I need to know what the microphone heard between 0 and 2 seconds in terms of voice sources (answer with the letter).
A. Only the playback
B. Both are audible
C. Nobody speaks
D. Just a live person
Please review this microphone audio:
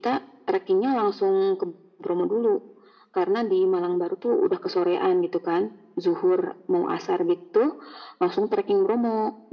A